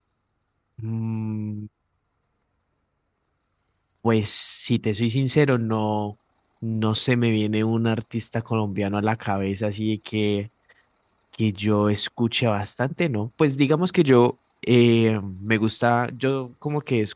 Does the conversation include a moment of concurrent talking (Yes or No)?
No